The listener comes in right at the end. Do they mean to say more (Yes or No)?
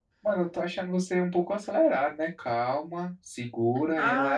Yes